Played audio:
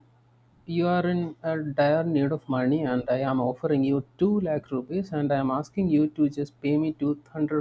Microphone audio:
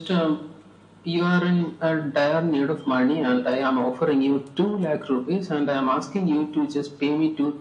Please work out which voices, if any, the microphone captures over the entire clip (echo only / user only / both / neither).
echo only